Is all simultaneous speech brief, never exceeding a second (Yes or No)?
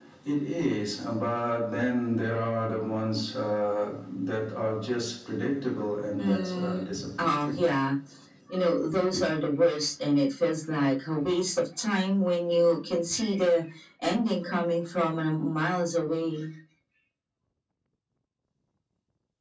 No